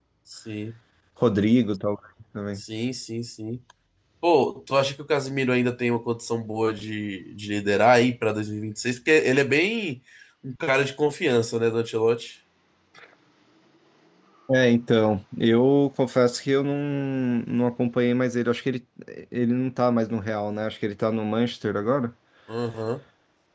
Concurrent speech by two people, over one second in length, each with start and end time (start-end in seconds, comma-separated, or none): none